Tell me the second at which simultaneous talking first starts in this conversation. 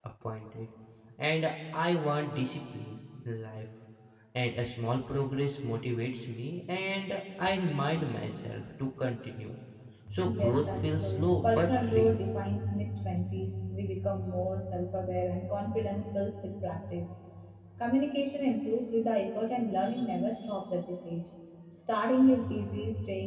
10.2 s

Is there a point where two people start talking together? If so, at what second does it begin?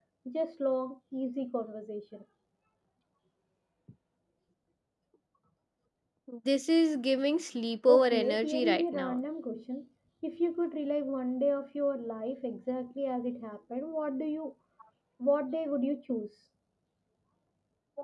7.9 s

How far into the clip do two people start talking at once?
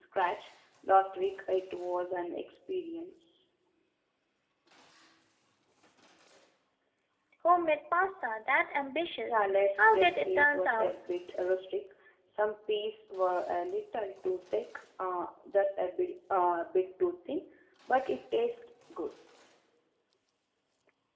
9.3 s

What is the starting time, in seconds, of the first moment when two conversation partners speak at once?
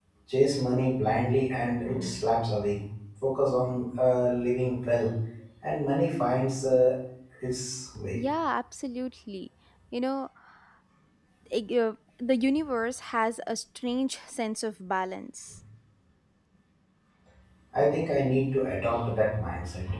none

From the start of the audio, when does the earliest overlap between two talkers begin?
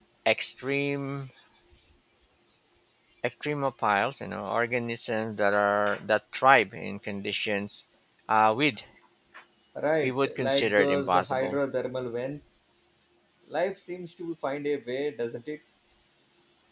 10.0 s

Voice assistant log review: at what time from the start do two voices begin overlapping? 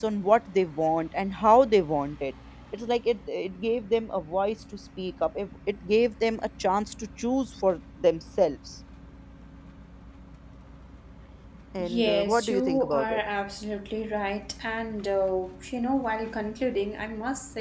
11.8 s

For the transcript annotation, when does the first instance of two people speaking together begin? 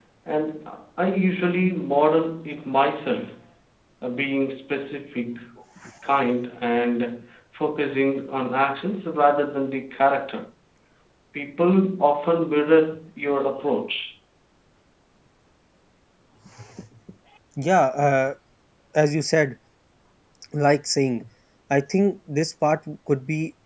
none

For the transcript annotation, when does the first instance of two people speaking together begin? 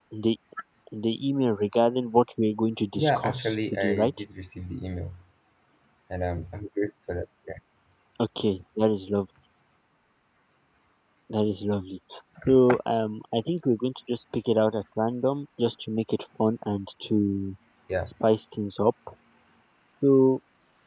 2.9 s

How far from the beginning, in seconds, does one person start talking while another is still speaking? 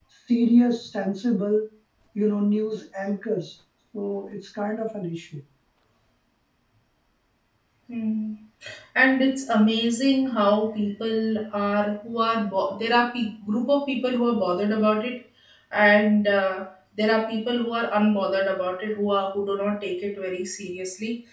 none

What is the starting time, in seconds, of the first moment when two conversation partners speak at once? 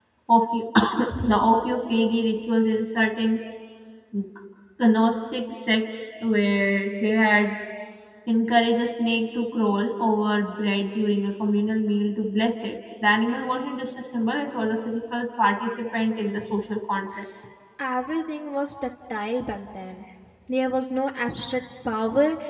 none

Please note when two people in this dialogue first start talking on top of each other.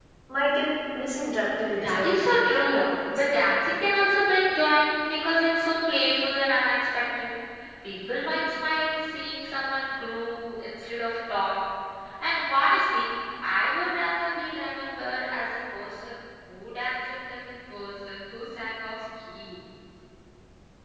1.6 s

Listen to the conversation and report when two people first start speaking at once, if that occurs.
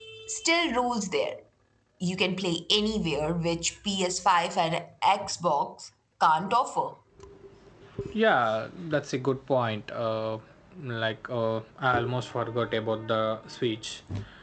none

